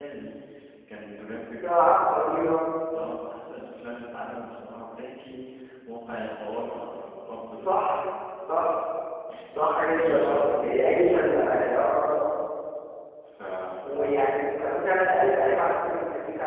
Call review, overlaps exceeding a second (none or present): present